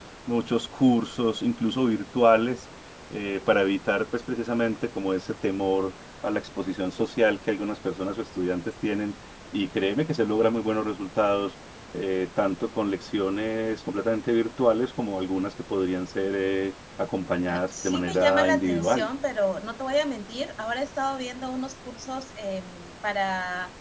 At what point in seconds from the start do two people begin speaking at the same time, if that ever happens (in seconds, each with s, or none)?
17.5 s